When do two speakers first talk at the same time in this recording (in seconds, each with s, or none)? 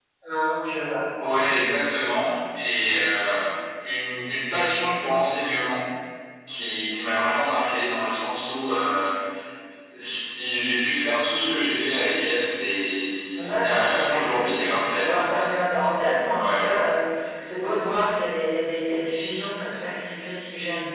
13.3 s